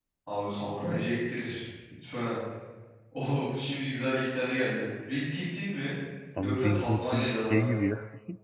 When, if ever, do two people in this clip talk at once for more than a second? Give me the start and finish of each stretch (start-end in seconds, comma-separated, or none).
6.4-7.8